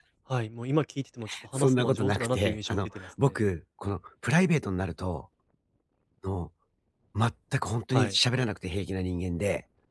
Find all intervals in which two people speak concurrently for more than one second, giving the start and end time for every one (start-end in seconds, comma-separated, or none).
1.5-3.4